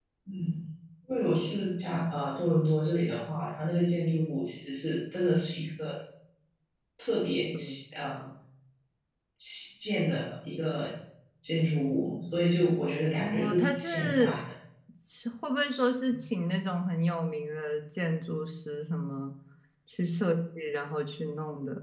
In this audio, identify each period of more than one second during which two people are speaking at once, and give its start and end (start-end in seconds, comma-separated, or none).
13.1-14.4